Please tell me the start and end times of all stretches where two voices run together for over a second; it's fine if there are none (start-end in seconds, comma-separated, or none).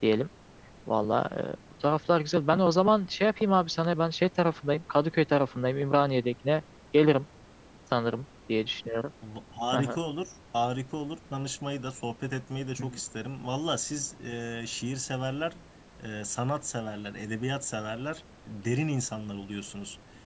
none